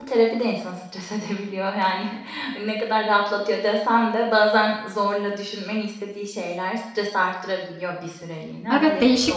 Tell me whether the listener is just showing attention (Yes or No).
No